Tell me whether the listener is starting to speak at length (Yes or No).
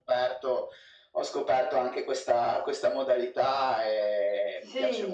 Yes